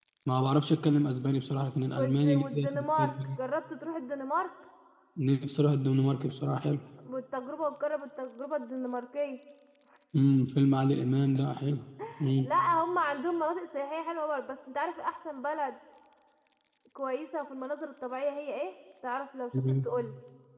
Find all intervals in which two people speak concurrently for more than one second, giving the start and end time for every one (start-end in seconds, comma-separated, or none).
1.9-3.1